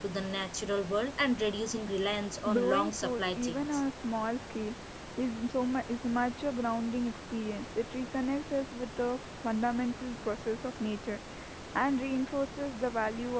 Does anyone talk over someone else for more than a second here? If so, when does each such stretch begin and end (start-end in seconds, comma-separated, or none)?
2.5-3.8